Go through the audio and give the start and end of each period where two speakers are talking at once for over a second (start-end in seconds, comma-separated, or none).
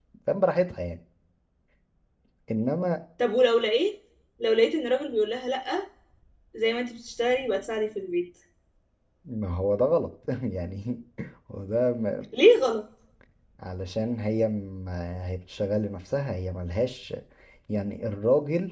none